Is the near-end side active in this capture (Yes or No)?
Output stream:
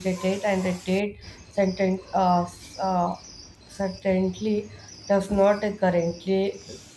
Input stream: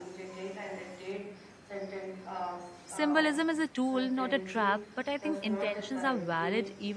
Yes